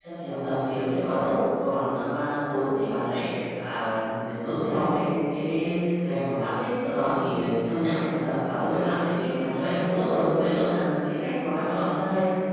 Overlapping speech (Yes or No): No